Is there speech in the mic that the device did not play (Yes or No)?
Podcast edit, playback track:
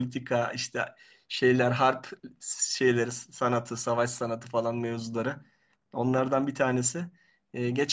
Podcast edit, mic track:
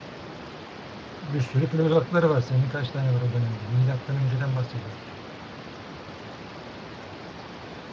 Yes